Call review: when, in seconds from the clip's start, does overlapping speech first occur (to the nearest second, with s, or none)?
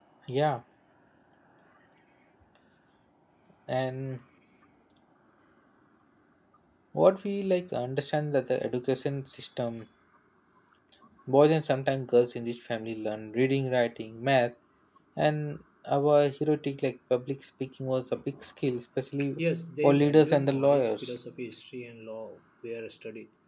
20 s